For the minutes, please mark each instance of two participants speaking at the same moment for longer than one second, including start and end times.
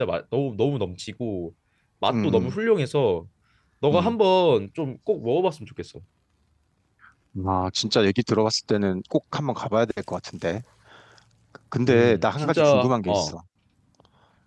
11.9-13.3

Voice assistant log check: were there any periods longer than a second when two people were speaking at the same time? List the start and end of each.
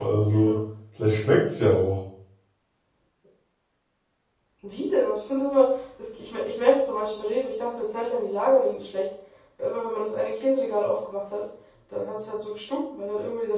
none

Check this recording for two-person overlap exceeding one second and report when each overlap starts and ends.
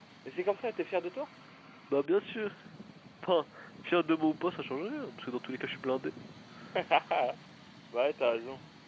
none

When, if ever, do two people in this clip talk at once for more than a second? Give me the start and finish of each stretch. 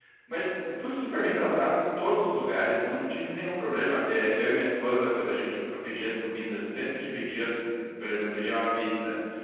none

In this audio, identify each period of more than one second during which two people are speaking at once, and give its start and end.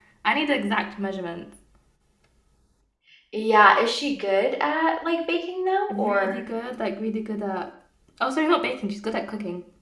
none

